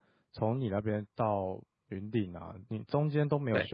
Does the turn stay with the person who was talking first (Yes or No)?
Yes